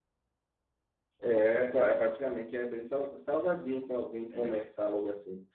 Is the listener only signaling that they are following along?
Yes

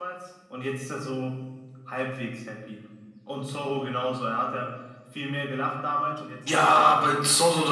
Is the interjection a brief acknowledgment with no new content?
No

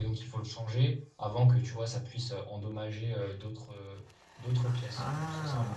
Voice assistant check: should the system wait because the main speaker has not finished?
No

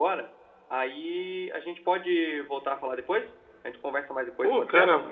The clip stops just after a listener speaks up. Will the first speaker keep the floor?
No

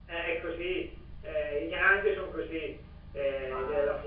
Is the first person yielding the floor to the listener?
No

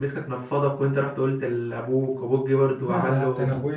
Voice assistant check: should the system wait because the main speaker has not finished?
No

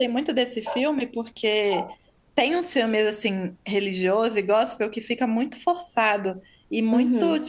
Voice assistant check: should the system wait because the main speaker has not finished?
Yes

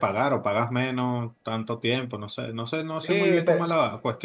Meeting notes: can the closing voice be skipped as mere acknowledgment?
No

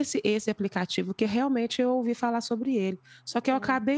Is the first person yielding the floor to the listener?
No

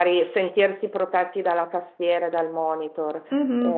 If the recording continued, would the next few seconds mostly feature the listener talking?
Yes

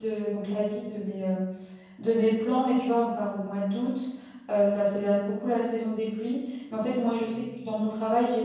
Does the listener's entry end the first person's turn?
No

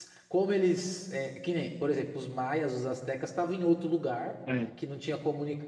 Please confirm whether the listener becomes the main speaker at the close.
No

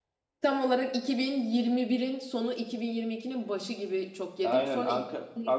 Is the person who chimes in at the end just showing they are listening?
No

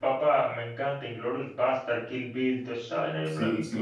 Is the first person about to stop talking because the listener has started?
Yes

